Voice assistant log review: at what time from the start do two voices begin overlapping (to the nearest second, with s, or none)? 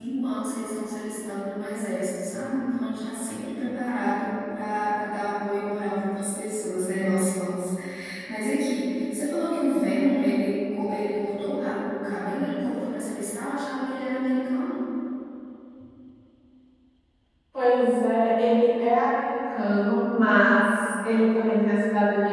none